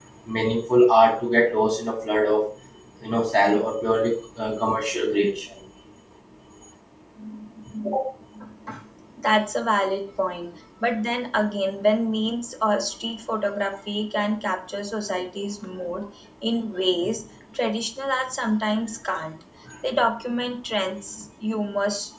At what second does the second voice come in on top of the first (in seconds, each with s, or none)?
none